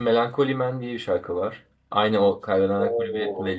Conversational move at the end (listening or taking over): taking over